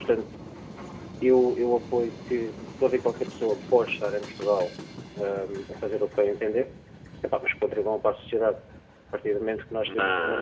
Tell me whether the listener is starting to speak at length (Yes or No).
No